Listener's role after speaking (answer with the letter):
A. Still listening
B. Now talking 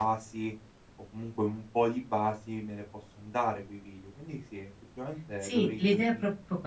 B